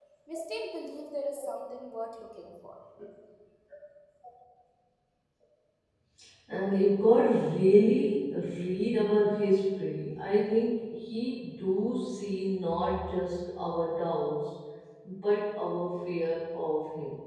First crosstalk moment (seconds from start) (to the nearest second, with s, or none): none